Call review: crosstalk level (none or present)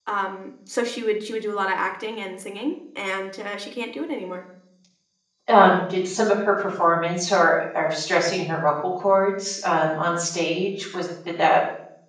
none